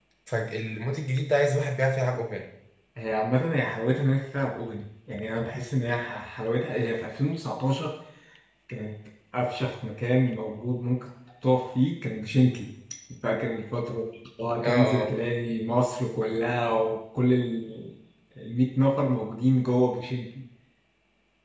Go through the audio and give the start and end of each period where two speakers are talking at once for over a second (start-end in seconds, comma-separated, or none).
none